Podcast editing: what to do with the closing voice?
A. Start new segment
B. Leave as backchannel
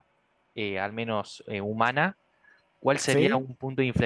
B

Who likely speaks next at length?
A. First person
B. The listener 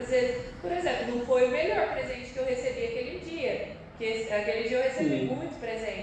A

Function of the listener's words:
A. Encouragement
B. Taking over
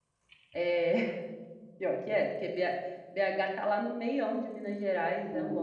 B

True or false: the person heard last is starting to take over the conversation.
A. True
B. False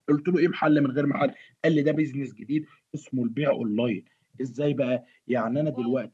B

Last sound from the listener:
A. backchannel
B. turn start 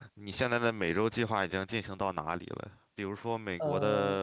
A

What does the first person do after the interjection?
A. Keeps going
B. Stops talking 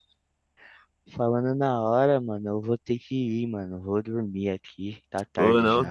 B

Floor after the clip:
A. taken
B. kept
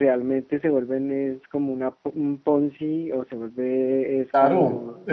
A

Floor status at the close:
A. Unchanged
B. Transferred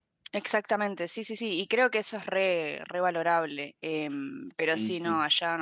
A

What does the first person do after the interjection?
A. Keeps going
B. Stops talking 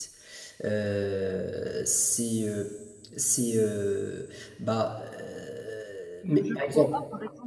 B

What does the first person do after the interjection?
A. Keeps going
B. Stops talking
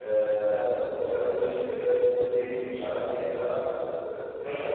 B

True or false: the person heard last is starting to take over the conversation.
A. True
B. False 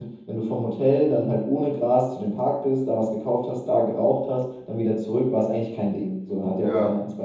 B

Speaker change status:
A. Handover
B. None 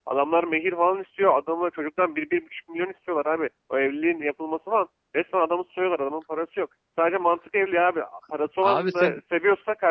B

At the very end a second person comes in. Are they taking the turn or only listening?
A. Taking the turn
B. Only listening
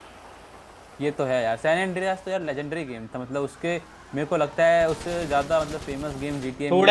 A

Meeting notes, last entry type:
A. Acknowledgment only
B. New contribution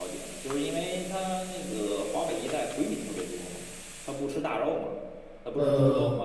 A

